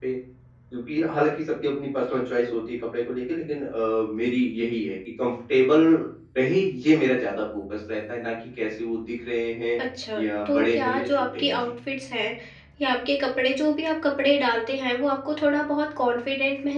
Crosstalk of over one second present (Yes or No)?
Yes